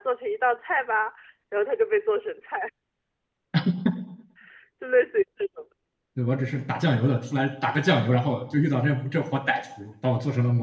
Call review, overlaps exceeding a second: none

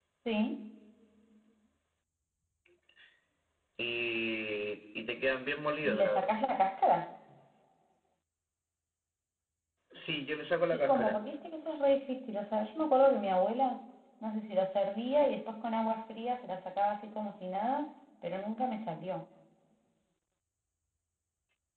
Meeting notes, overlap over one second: none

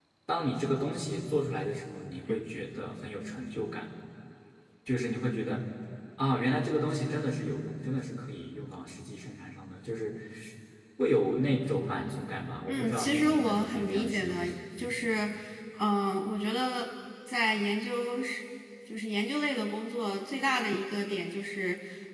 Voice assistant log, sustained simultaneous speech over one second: present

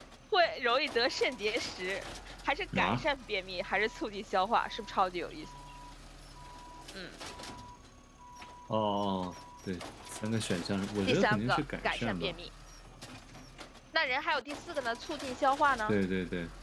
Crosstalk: present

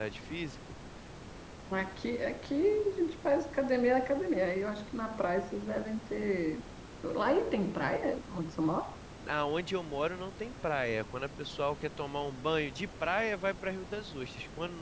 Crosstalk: none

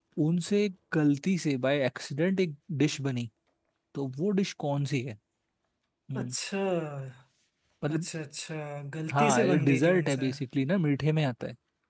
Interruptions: present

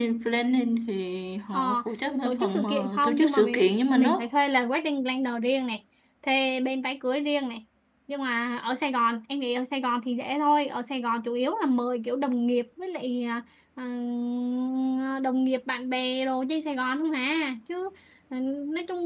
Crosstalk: present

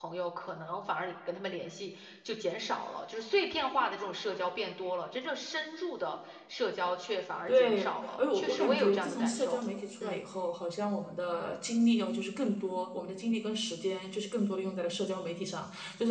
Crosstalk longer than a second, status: present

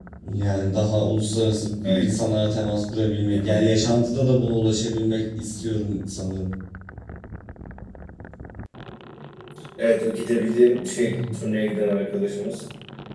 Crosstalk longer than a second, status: none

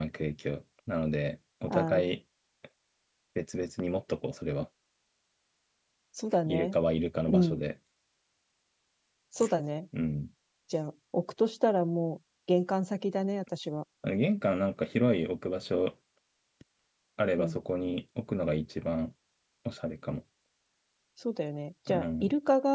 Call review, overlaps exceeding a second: none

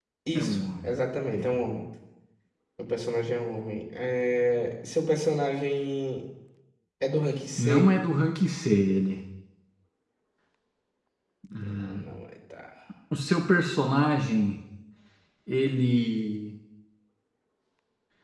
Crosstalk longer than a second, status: none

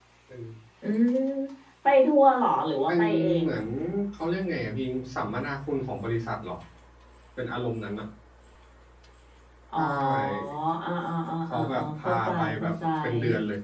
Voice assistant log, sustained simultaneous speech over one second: present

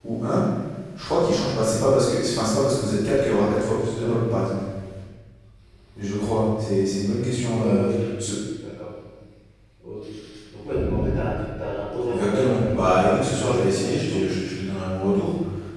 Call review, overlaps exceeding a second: present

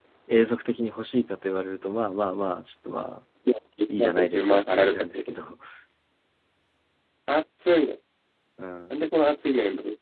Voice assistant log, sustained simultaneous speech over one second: present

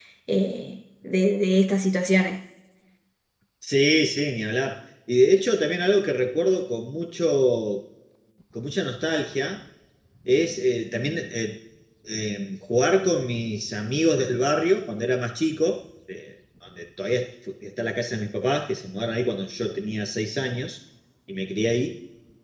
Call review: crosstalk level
none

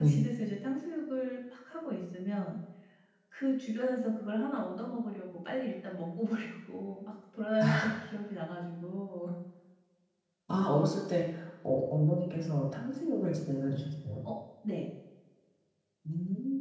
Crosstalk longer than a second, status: none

